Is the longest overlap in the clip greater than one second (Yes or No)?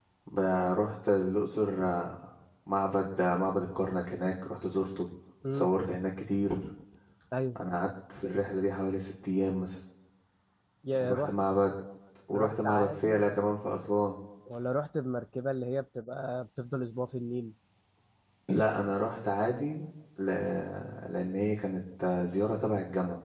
Yes